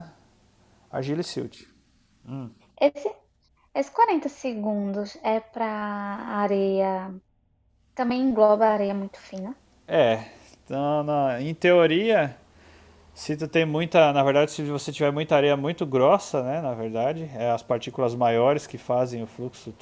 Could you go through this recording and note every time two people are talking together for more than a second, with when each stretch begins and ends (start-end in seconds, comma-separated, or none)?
none